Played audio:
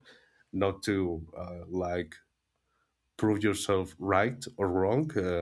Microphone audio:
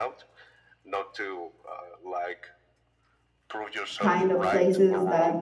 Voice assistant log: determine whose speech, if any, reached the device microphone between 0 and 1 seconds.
echo only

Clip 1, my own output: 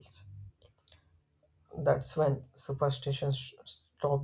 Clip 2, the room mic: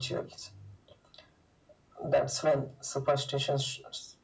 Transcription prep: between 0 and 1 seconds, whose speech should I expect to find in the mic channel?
echo only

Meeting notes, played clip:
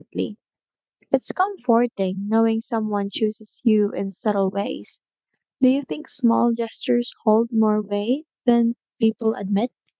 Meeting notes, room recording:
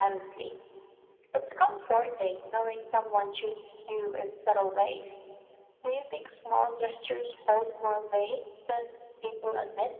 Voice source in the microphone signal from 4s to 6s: echo only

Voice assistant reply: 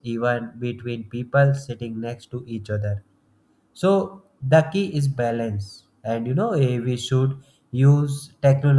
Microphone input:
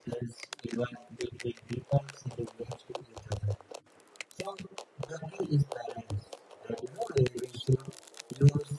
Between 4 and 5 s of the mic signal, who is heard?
echo only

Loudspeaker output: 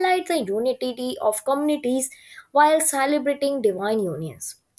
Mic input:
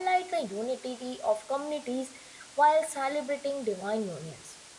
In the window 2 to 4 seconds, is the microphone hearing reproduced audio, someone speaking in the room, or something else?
echo only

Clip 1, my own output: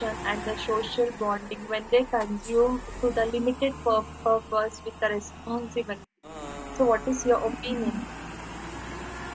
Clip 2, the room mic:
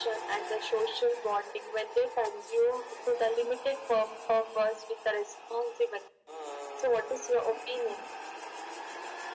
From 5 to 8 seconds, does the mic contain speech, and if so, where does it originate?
echo only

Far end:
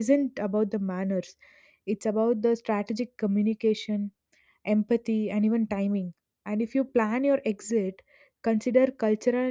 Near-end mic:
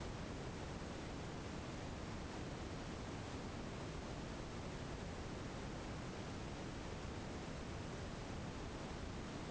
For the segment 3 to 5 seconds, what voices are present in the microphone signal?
neither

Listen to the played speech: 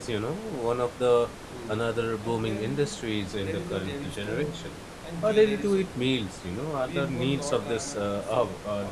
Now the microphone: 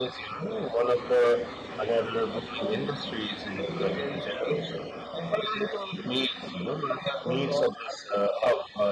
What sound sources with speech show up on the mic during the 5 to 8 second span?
echo only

